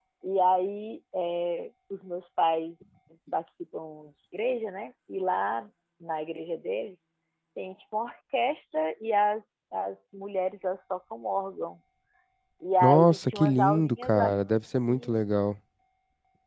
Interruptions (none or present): present